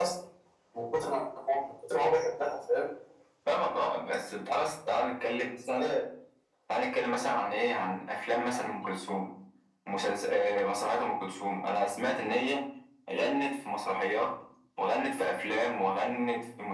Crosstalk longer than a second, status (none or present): none